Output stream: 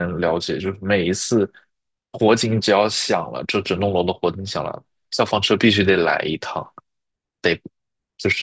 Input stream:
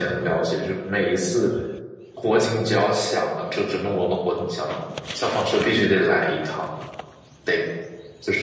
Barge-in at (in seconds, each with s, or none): none